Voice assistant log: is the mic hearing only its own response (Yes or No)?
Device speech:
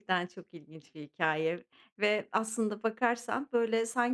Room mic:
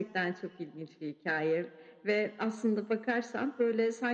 Yes